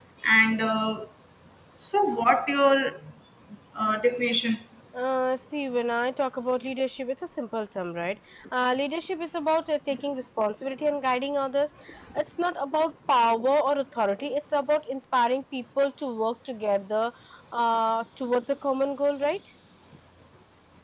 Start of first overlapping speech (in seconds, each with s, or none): none